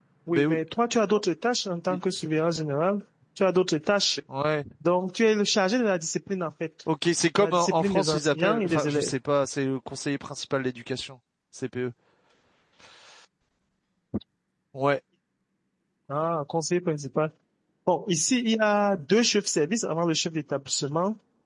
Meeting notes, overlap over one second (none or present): present